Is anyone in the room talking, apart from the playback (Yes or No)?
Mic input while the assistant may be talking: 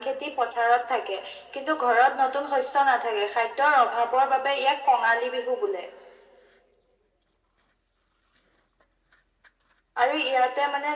No